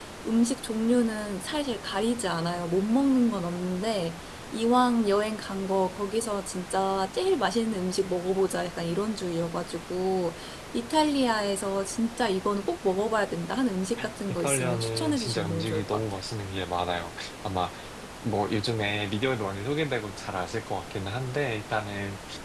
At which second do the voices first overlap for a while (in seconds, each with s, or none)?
14.3 s